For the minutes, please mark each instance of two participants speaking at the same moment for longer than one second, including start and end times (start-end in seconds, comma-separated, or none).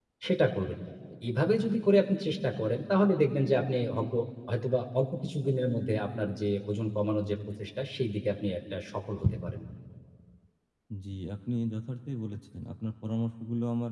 none